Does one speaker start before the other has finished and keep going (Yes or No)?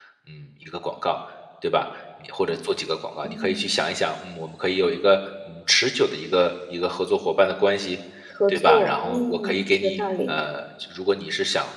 Yes